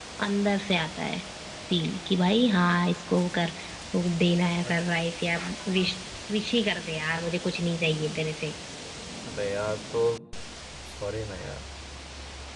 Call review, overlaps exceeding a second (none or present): none